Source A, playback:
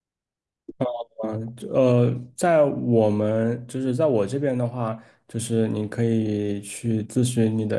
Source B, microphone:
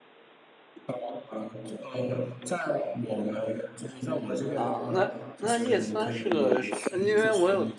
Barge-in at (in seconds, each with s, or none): 4.5 s